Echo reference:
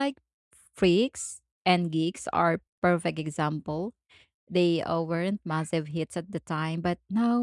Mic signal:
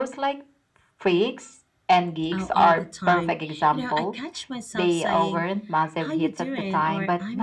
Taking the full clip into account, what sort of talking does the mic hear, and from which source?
both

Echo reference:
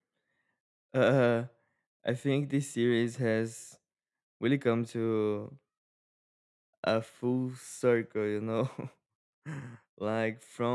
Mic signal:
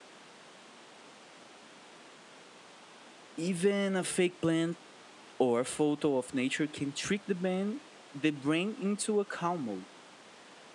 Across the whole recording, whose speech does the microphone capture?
user only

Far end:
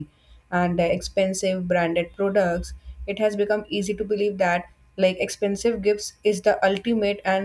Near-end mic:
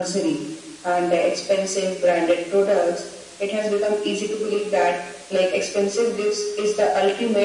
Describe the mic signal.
echo only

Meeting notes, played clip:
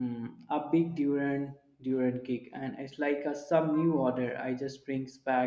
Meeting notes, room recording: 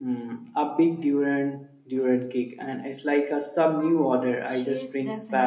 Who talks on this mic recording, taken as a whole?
both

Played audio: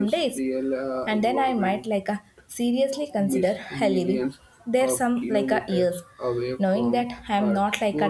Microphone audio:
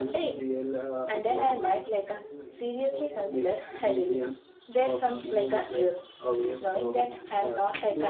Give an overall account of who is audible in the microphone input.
both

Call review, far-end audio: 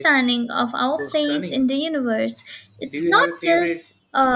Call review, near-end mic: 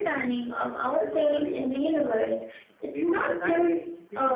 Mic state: both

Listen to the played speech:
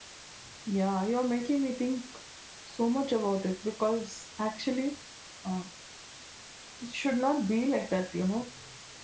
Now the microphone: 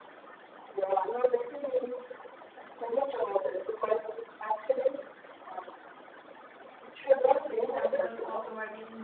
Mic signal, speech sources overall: both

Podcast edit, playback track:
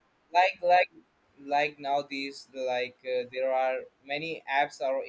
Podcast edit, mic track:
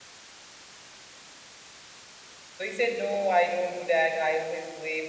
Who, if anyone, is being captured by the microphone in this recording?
user only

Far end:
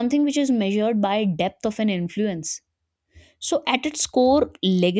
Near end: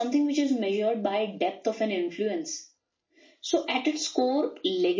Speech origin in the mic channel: echo only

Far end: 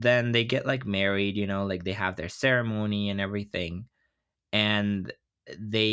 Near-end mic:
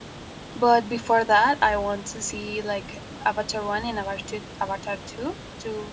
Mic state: user only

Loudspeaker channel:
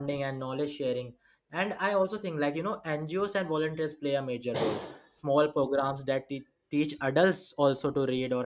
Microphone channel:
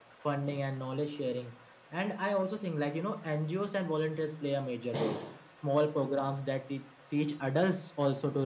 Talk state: echo only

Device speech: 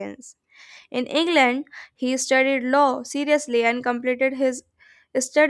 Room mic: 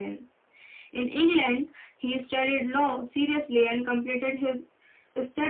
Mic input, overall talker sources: echo only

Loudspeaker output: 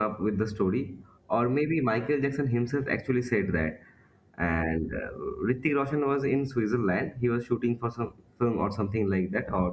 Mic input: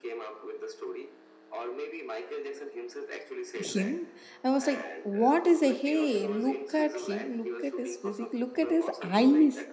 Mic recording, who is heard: both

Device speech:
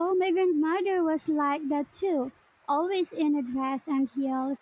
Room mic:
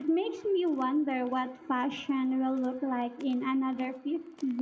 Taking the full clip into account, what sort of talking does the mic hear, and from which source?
user only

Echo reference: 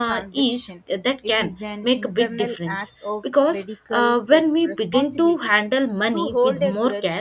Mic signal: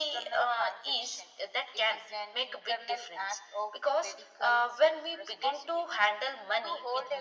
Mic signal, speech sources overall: echo only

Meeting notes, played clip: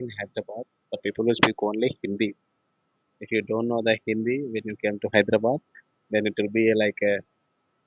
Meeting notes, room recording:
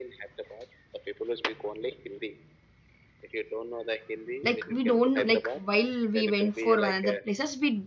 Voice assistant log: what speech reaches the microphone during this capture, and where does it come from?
both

